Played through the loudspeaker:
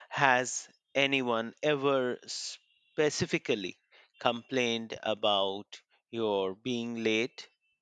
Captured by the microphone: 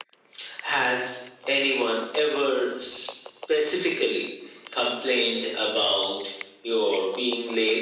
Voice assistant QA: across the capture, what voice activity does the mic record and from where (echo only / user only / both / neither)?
echo only